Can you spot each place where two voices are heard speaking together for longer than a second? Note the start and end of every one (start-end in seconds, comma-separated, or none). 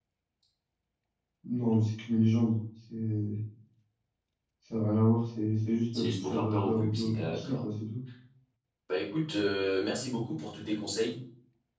5.9-7.6